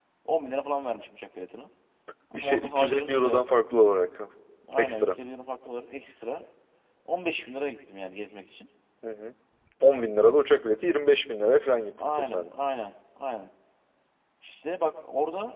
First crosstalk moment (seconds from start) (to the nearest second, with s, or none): 2 s